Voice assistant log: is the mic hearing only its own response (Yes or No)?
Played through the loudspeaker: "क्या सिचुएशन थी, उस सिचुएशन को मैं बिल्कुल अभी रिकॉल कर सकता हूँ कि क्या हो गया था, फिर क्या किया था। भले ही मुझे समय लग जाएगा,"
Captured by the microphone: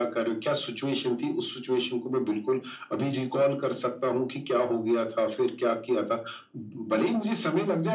Yes